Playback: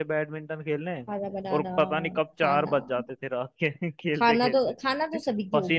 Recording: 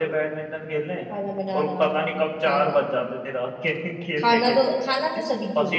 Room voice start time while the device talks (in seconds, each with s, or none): none